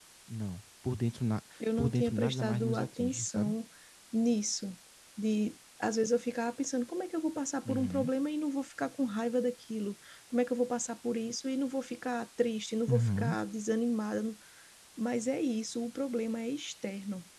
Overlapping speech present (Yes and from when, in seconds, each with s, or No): Yes, from 1.8 s